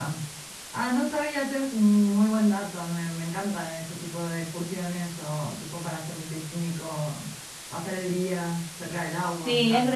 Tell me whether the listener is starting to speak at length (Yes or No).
Yes